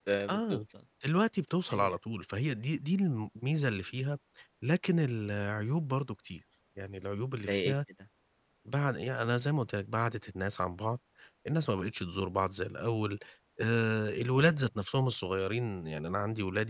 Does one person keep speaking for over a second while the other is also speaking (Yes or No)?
No